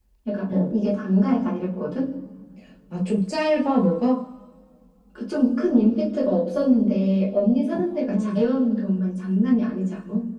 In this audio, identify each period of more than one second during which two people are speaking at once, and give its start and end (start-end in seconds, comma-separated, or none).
none